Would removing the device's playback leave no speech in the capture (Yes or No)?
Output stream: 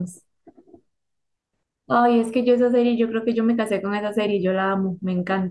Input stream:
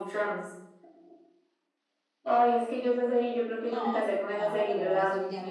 No